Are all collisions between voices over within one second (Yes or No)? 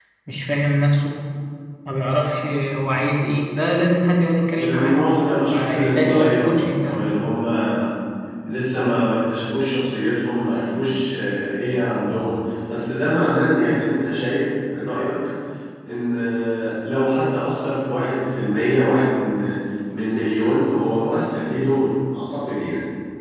No